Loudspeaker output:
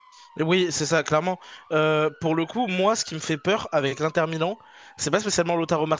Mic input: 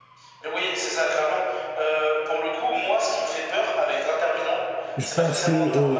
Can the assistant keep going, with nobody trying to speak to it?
No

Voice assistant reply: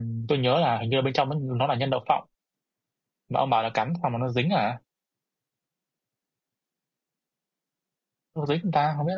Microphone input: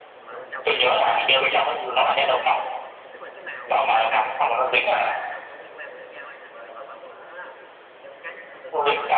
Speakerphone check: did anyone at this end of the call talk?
Yes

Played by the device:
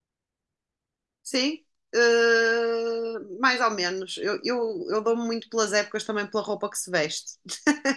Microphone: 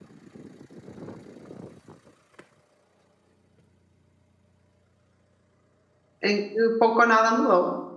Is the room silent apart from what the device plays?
No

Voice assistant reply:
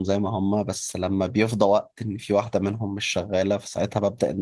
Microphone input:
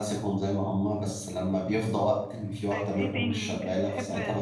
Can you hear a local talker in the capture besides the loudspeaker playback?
Yes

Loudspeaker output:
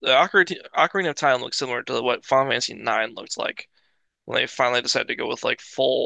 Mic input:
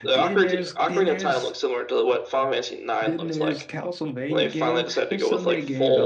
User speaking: Yes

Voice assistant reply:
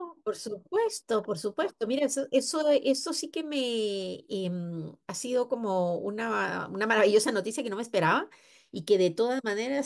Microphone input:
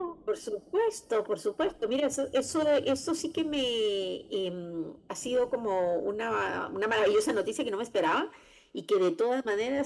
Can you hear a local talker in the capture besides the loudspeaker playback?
No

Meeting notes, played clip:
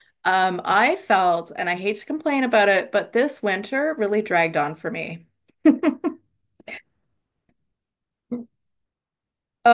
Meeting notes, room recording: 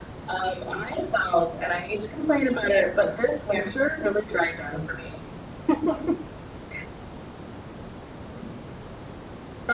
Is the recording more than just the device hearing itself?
No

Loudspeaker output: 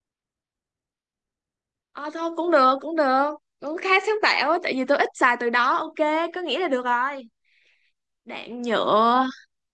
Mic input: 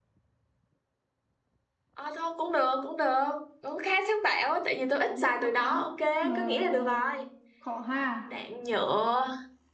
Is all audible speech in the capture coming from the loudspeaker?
No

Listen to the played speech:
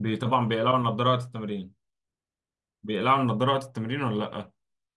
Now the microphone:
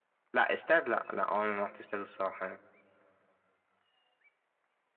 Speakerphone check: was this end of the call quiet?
No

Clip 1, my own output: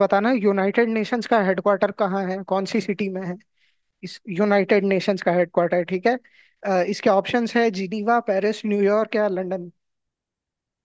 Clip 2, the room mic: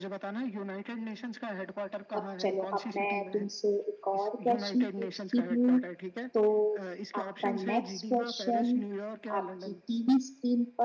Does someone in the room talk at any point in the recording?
Yes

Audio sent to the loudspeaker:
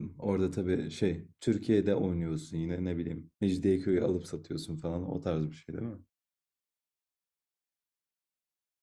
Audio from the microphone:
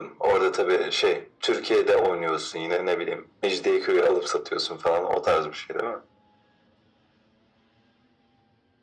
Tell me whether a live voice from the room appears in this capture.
No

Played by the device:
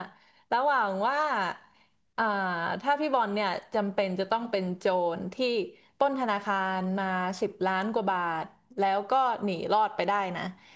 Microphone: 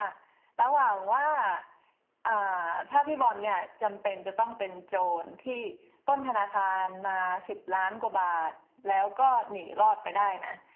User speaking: No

